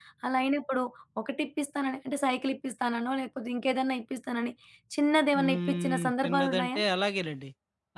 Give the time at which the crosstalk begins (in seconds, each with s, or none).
5.4 s